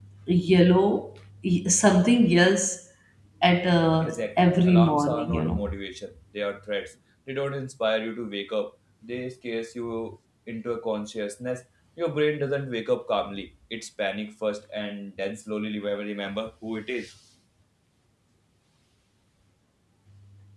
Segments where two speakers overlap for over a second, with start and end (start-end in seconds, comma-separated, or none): 4.0-5.7